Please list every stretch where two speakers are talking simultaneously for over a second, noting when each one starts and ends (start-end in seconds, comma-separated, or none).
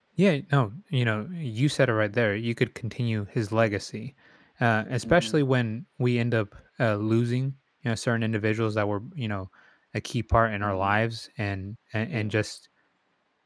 none